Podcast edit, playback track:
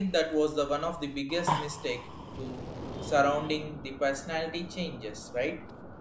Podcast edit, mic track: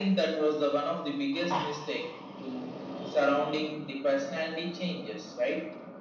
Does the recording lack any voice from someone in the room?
Yes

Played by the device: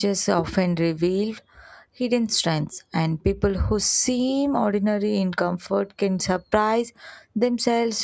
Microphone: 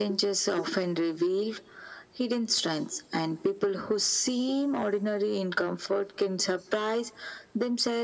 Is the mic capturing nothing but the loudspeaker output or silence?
Yes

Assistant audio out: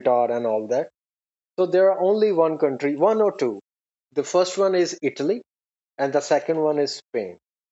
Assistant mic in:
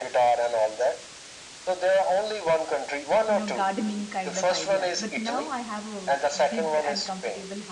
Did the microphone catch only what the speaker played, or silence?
No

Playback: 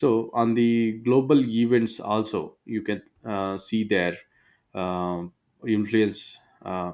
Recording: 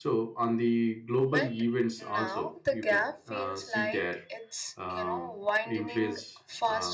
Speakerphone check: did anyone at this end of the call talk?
Yes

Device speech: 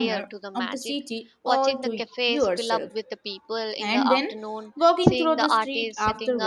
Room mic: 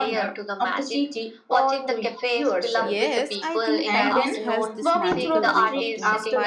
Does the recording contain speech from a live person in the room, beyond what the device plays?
Yes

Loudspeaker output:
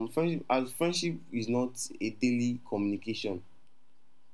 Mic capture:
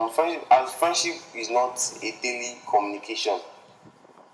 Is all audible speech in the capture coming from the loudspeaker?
Yes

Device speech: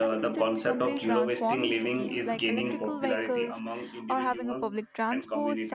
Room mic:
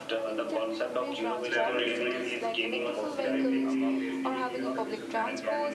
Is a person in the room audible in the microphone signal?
Yes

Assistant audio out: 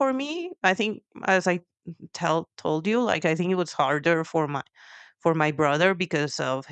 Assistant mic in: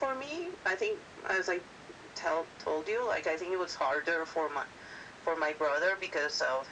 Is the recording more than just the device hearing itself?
No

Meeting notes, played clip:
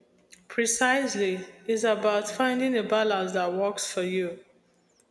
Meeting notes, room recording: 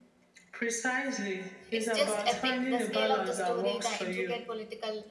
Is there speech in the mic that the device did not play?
Yes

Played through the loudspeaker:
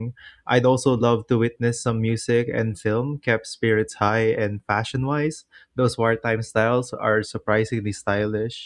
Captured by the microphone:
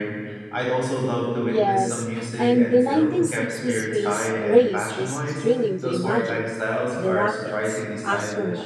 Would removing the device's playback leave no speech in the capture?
No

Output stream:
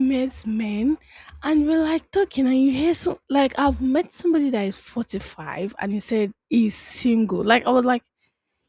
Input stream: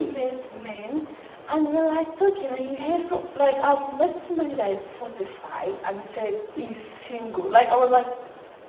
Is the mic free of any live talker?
Yes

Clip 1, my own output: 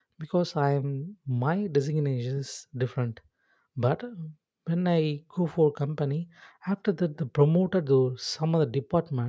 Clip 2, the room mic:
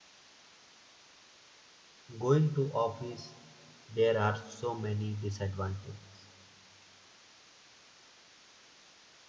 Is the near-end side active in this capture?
Yes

